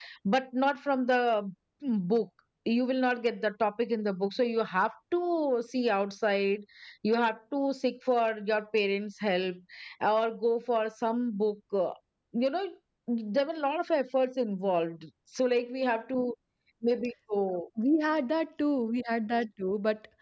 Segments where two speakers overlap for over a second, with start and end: none

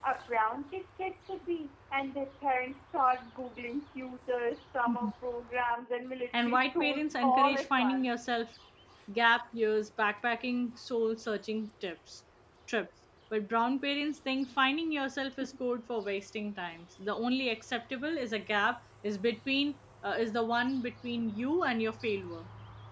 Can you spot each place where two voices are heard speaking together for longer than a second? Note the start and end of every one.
6.4-8.1

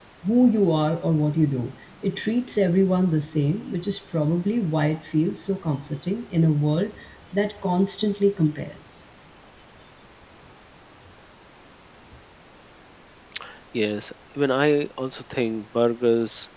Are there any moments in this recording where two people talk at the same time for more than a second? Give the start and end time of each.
none

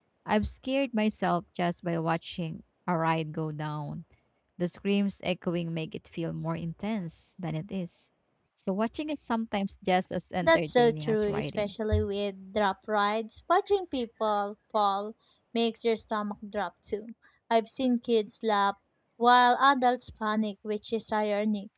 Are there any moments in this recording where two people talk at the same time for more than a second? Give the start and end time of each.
10.4-11.7

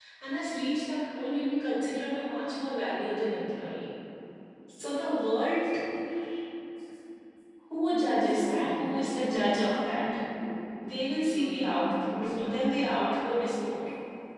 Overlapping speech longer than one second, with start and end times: 7.9-10.1, 11.3-13.0

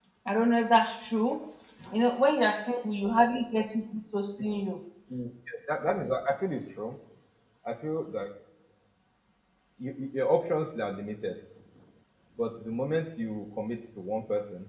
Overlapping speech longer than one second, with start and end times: none

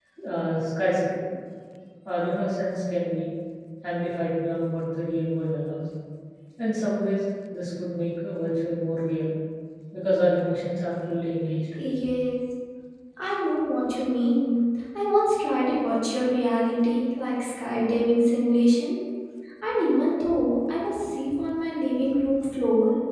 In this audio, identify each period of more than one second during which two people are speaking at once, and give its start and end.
none

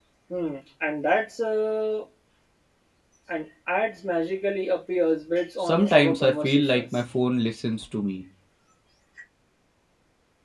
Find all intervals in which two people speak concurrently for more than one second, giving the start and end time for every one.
5.6-6.8

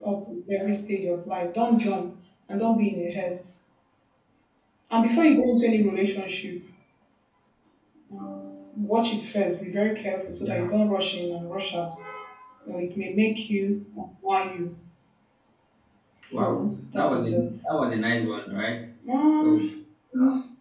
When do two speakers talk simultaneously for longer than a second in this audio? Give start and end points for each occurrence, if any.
16.3-17.5

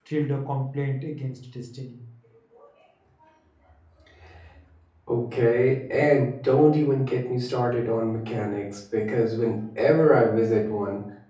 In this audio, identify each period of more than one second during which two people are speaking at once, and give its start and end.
none

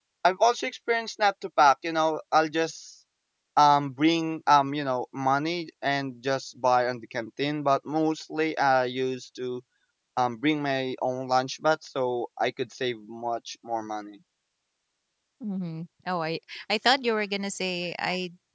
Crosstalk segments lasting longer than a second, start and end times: none

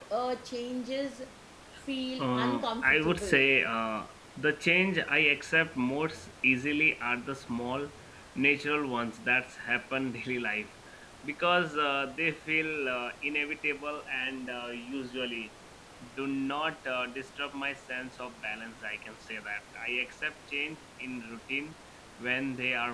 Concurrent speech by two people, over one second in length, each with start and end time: 2.2-3.5

